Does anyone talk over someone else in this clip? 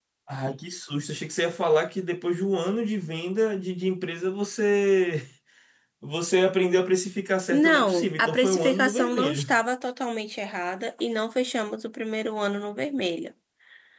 Yes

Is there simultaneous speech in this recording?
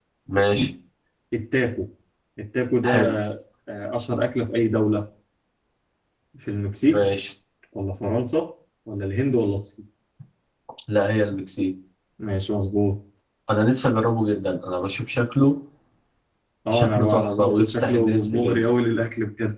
Yes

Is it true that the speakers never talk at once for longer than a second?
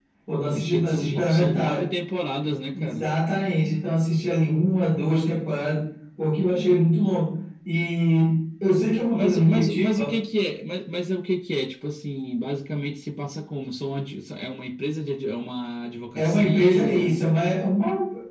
No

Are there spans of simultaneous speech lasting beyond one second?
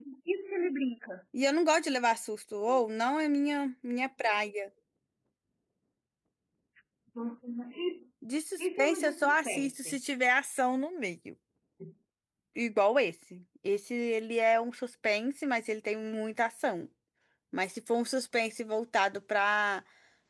Yes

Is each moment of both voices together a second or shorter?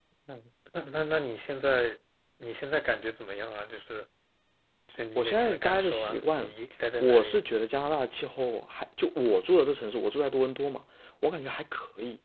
No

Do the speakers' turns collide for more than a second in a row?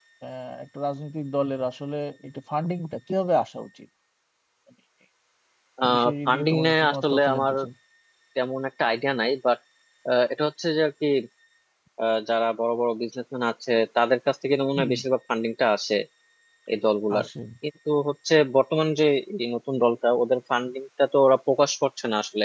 Yes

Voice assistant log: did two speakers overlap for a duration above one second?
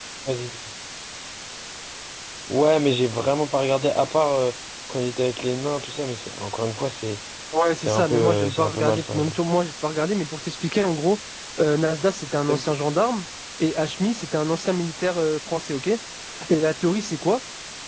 Yes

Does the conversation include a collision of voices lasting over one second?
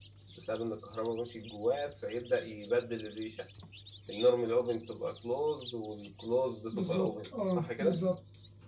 Yes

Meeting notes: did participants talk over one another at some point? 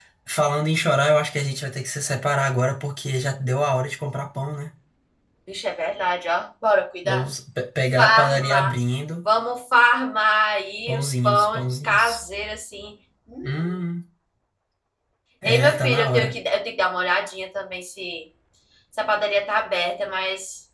Yes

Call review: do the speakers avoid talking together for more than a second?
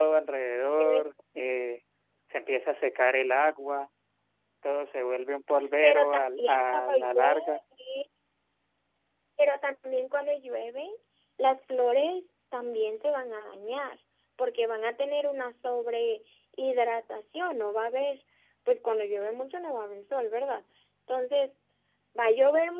No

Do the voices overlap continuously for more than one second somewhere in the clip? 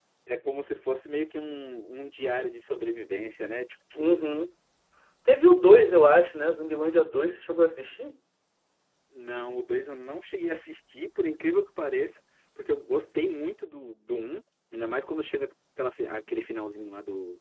No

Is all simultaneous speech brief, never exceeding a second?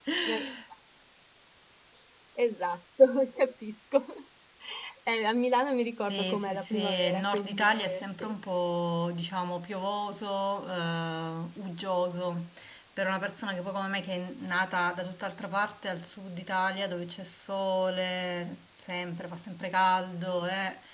No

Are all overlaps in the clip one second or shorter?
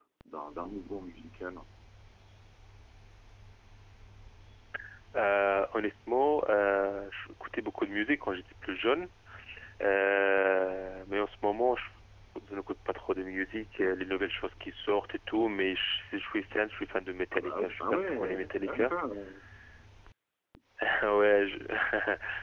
No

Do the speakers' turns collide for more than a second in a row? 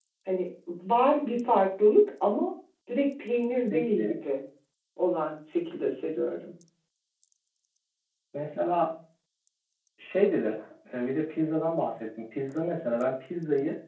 No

